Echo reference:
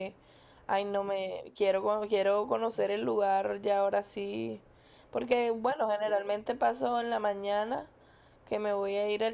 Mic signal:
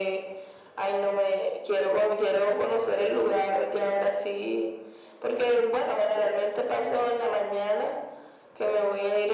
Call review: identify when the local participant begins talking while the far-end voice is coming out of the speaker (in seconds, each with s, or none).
none